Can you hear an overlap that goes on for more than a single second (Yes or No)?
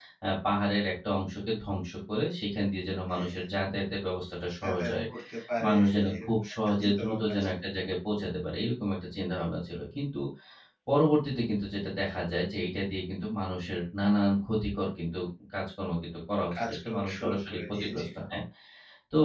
Yes